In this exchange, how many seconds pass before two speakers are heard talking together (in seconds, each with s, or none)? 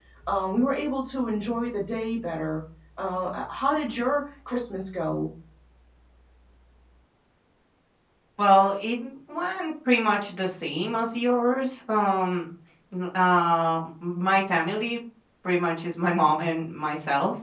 none